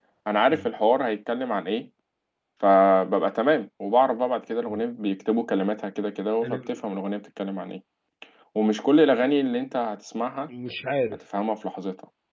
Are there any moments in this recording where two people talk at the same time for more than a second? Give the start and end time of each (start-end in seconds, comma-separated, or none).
none